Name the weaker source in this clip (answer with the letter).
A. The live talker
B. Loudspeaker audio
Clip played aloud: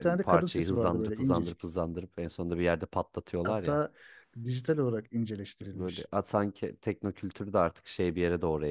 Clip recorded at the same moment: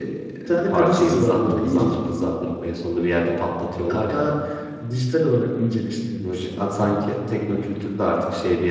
A